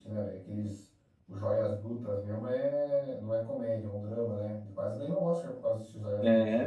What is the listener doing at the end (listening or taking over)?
taking over